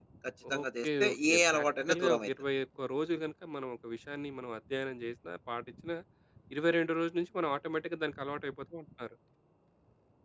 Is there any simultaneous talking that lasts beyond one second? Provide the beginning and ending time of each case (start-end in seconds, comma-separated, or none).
0.6-2.3